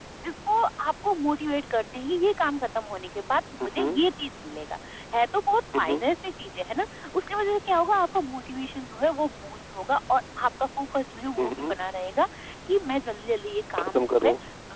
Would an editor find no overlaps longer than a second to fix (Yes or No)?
Yes